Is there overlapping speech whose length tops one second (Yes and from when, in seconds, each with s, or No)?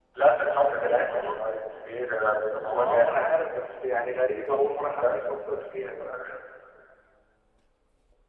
No